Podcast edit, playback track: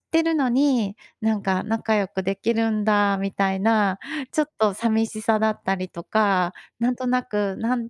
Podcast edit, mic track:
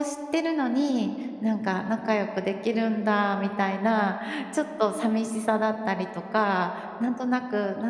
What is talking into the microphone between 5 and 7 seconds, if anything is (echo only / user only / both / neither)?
echo only